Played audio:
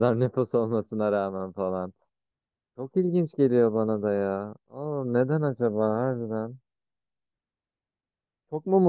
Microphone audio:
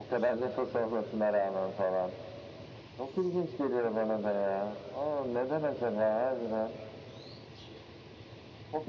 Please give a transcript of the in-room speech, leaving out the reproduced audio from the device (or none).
none